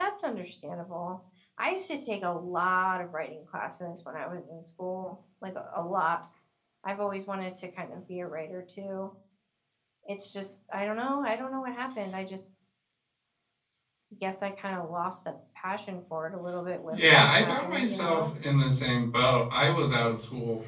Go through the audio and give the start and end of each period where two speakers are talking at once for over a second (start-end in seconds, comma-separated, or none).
16.9-18.3